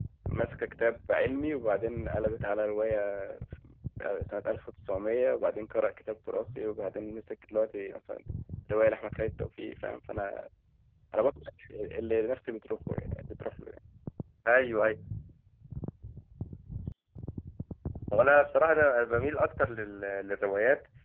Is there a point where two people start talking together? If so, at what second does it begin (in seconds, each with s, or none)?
none